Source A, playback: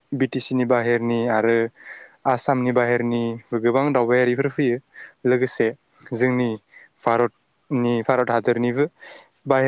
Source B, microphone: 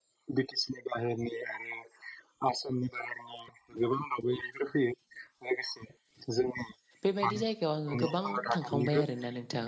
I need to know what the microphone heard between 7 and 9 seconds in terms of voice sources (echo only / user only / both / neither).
both